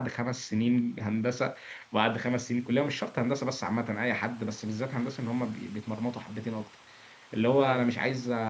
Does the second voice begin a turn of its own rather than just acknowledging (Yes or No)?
No